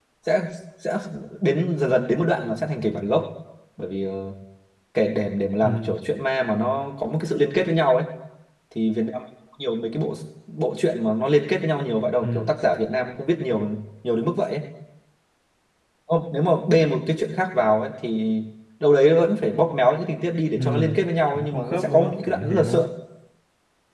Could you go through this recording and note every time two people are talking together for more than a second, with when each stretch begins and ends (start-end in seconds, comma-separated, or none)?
21.3-22.8